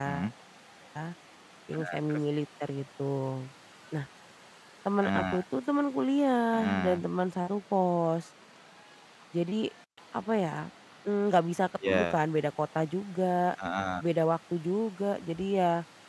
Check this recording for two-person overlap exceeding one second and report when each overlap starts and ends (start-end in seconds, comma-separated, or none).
none